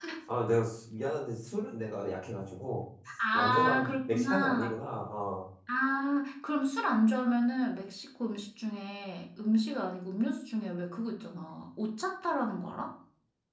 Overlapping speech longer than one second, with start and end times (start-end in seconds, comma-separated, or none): 3.3-4.8